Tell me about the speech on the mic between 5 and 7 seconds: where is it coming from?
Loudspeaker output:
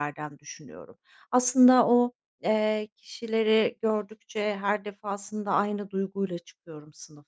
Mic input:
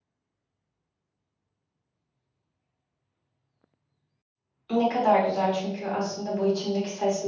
user only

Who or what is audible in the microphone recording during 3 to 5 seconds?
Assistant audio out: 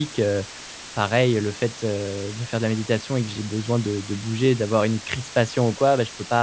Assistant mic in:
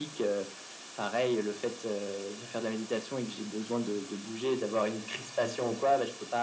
echo only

